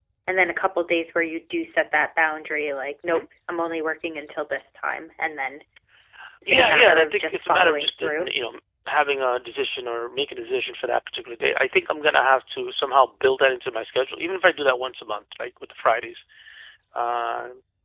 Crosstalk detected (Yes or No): Yes